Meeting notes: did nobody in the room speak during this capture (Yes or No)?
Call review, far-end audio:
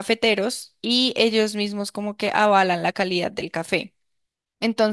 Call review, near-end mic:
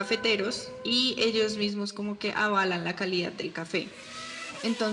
Yes